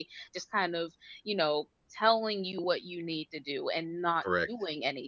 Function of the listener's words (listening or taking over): listening